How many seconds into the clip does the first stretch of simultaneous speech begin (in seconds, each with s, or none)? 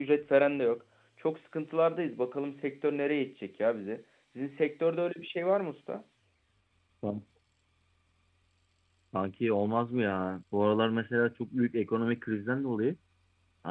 none